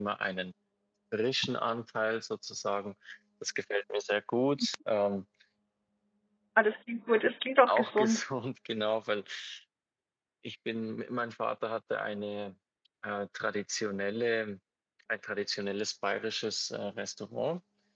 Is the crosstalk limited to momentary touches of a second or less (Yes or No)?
Yes